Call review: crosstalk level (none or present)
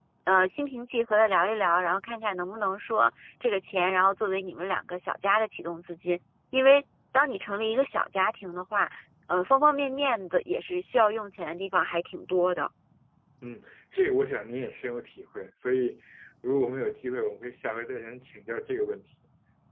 none